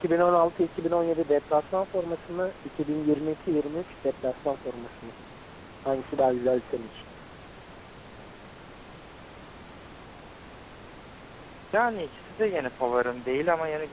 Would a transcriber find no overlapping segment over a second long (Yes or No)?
Yes